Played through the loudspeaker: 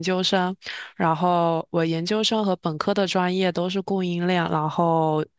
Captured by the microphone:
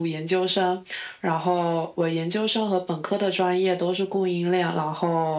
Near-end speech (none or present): none